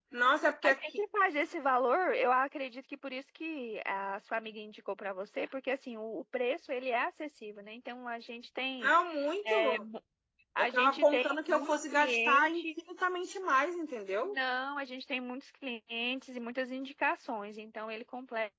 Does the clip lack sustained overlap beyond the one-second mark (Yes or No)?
No